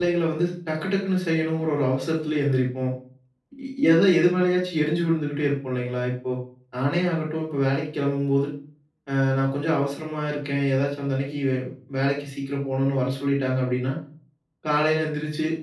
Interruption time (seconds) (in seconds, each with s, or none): none